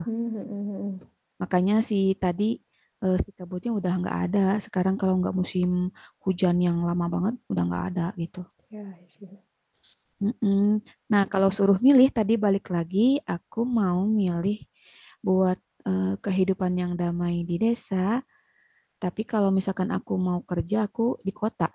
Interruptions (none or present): none